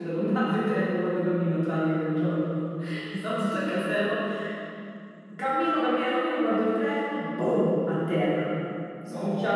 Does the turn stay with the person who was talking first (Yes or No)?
Yes